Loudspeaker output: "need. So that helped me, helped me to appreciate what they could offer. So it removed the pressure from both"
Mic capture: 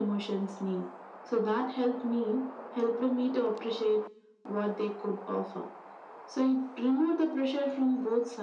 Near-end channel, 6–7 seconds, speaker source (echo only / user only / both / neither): echo only